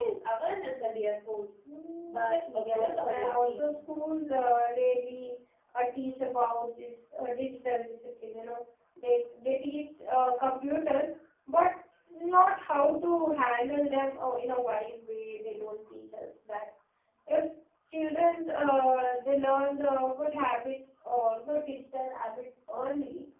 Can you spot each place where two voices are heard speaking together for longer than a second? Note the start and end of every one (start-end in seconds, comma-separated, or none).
2.1-3.8